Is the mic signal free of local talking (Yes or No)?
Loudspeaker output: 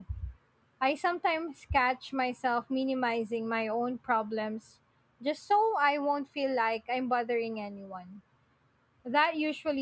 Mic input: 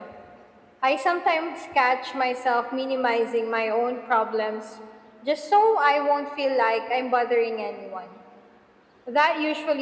Yes